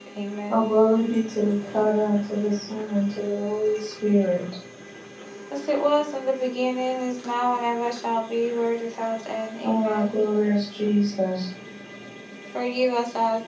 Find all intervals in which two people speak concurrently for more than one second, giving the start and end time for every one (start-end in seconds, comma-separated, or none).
none